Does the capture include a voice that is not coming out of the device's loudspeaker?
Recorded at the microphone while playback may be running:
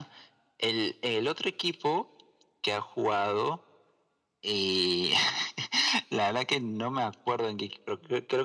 No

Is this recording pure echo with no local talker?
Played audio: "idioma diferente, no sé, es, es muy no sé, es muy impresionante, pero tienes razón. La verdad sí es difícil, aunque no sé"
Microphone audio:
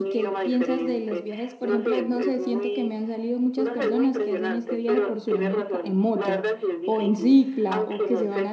No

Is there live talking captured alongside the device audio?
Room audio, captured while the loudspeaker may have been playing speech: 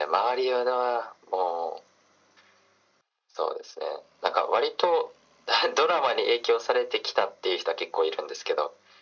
No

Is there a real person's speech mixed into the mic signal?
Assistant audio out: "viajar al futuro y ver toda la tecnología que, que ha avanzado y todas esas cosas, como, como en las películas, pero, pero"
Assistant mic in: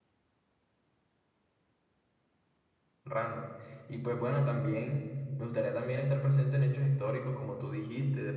Yes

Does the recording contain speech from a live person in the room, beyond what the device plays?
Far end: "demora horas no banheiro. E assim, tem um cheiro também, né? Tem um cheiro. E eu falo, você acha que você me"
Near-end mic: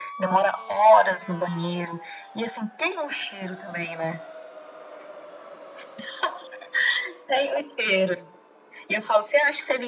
No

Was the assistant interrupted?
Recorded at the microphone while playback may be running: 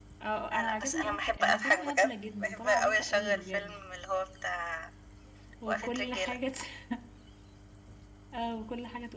Yes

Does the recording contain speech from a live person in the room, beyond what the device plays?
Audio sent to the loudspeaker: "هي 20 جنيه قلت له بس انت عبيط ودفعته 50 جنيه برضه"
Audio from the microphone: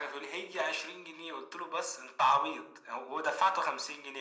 No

